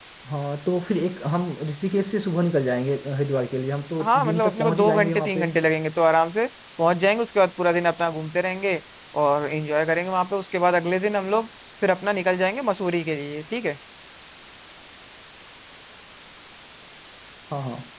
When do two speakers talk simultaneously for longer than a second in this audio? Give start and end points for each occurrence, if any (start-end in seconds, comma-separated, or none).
4.0-5.5